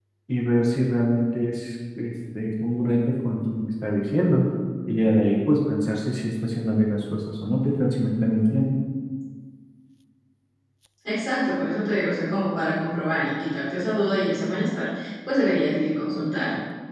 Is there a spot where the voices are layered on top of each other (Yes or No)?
No